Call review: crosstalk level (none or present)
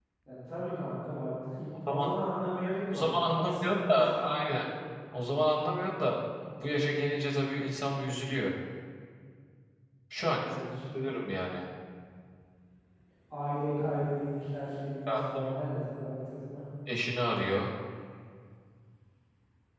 present